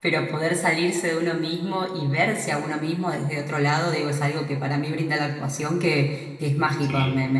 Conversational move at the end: listening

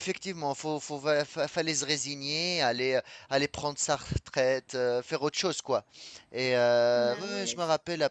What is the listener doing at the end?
listening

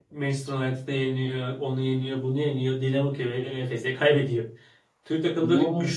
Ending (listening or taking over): listening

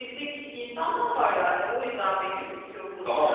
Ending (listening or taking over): taking over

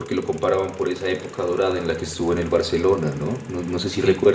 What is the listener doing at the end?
listening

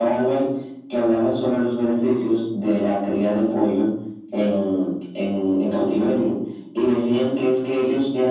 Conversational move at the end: listening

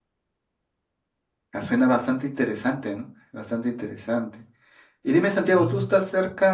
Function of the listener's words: listening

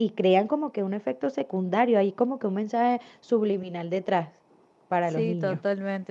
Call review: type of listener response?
taking over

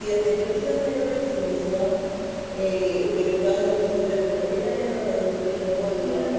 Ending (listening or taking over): listening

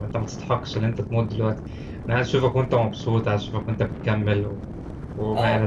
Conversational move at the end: taking over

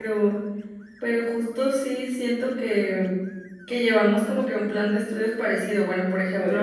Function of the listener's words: listening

